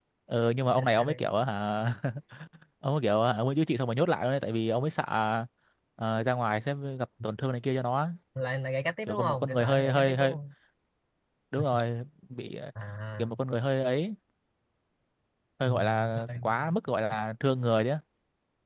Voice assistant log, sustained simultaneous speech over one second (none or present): present